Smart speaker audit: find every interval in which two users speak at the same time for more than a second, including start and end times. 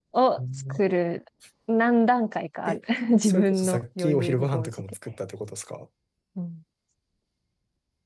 3.2-4.8

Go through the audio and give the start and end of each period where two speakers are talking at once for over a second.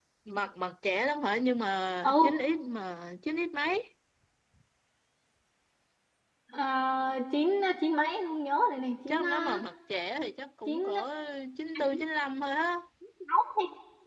none

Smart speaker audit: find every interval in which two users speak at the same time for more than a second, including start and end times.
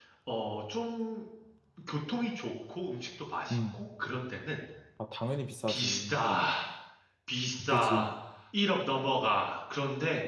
none

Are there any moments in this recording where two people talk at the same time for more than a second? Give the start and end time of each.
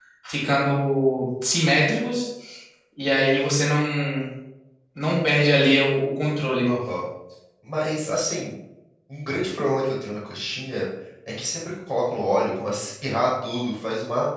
none

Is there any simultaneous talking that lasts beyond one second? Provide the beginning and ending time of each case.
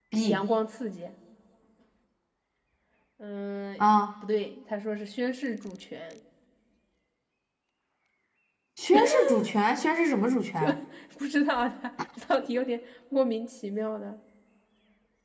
none

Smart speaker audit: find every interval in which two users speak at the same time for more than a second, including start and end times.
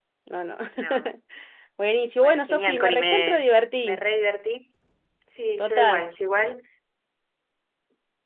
2.2-3.4

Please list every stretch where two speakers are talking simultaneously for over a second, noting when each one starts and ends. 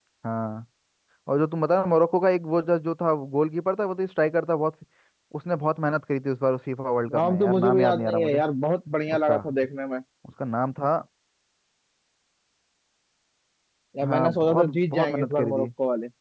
7.1-8.4, 14.1-15.7

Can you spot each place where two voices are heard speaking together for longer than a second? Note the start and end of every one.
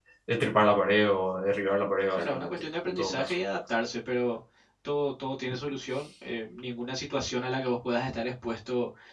2.1-3.3

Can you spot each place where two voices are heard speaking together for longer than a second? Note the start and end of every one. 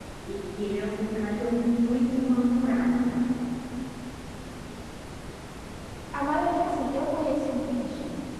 none

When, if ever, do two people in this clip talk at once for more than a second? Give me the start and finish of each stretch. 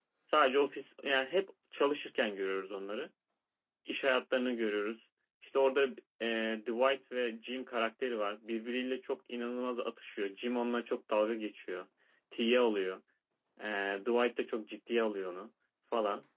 none

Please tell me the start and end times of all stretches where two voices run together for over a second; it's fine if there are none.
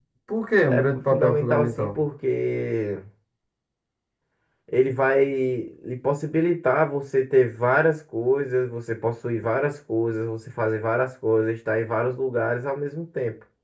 0.7-2.0

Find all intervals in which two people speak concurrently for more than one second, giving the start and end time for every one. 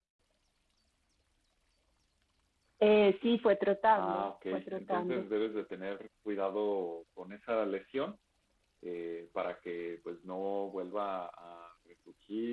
3.9-5.2

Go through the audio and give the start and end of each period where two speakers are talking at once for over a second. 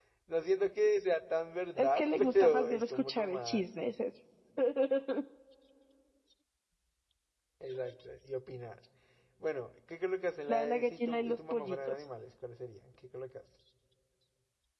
1.8-3.6, 10.5-12.0

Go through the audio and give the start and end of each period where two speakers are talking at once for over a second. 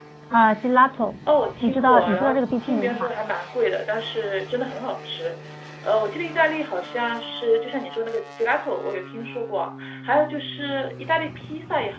1.6-3.1

